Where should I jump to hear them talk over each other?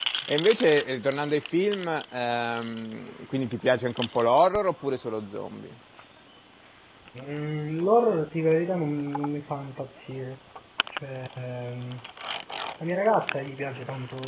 none

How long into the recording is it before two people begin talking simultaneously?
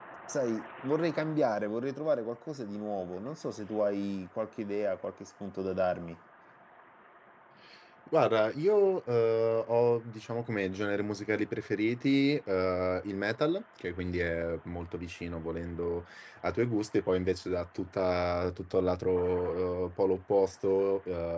none

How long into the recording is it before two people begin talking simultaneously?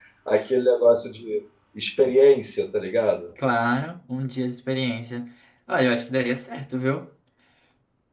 none

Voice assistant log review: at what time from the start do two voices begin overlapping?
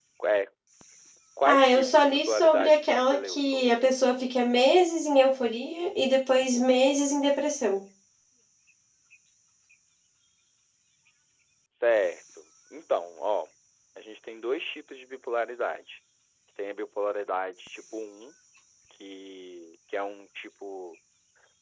1 s

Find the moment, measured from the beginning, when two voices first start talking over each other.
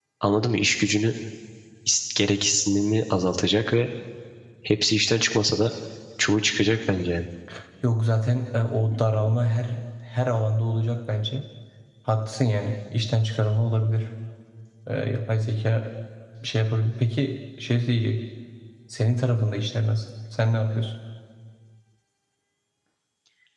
none

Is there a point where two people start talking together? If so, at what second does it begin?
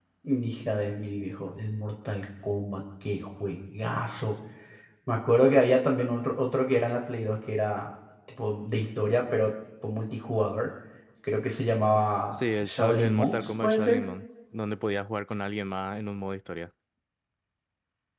12 s

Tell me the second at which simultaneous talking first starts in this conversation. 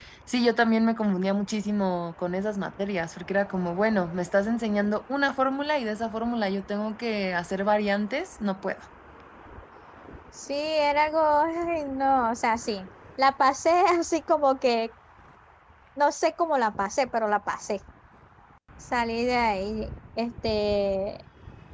none

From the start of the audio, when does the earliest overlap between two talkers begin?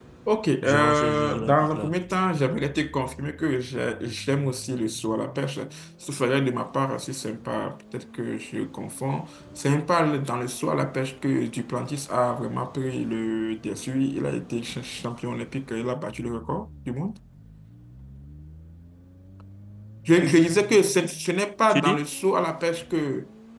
1 s

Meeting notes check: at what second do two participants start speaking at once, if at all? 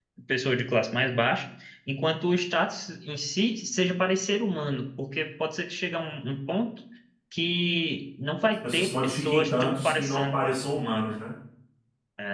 9 s

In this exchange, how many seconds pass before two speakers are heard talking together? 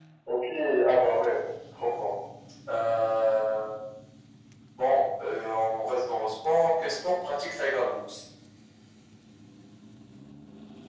none

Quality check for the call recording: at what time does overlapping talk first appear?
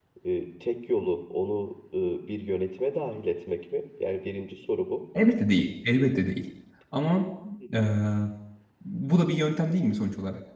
none

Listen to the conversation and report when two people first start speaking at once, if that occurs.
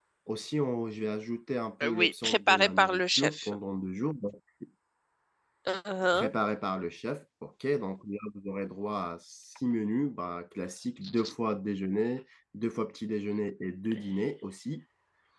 2 s

